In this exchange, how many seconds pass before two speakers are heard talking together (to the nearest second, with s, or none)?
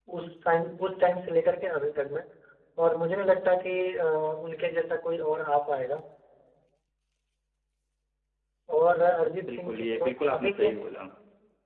9 s